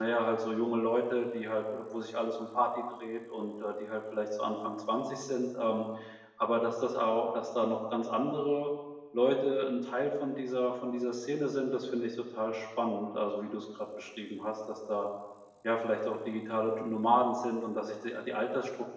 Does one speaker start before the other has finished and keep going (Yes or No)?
No